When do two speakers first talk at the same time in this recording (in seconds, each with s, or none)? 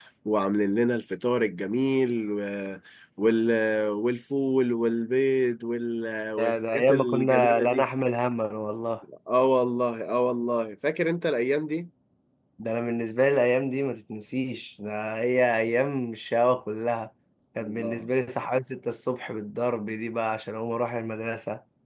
6.4 s